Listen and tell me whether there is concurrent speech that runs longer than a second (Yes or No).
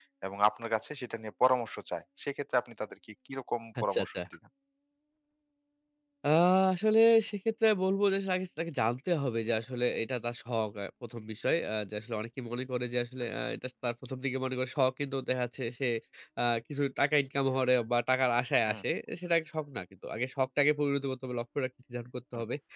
No